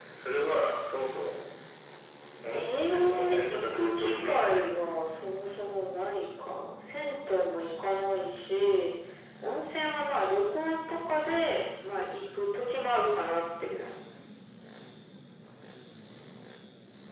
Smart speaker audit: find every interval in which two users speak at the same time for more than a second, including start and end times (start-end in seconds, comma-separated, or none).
2.5-4.7